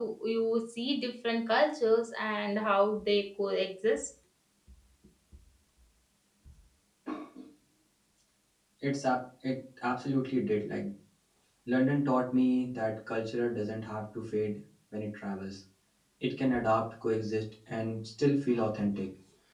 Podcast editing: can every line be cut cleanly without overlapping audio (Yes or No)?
Yes